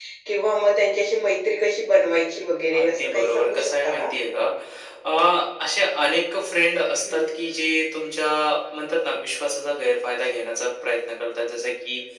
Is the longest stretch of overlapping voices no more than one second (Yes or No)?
No